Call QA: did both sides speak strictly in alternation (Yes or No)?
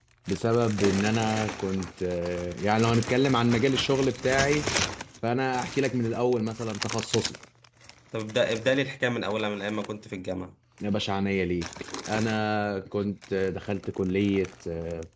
Yes